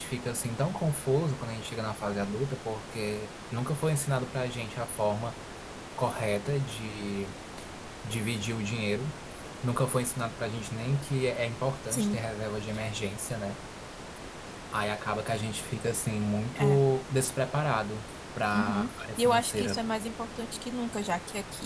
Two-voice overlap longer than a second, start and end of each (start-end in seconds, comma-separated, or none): 18.6-19.8